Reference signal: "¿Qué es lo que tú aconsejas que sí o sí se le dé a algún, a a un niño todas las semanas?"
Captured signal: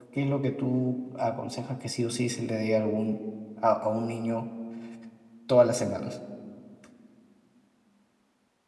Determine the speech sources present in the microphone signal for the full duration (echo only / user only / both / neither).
echo only